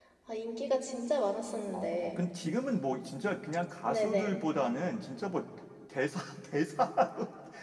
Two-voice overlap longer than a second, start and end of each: none

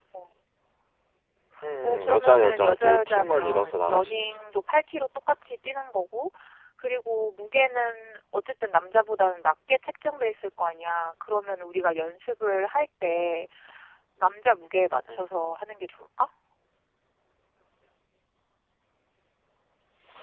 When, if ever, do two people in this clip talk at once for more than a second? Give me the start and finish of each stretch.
1.8-4.4

